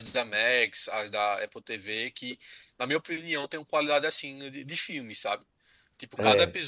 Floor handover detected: No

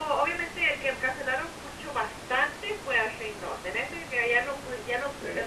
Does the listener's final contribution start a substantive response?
No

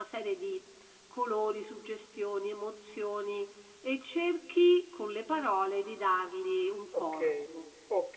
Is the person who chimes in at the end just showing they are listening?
No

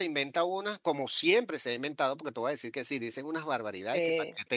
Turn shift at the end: No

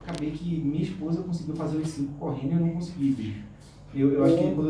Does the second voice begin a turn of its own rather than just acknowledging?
No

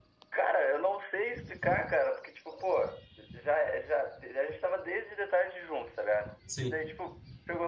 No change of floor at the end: Yes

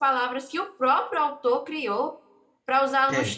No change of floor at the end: Yes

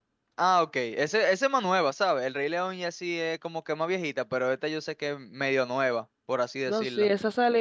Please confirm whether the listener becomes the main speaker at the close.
Yes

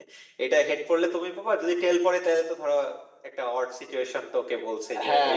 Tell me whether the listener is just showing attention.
No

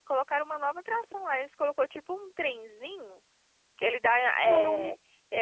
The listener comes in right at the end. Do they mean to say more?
No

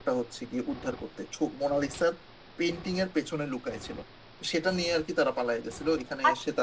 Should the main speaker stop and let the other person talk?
Yes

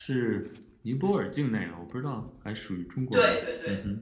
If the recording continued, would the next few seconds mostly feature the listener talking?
Yes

